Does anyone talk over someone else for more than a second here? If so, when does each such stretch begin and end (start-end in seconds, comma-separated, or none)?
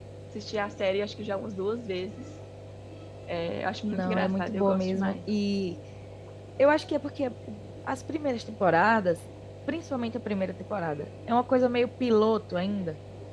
3.9-5.1